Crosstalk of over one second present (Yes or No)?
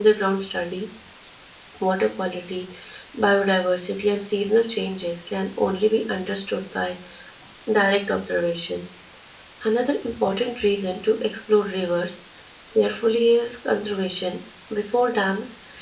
No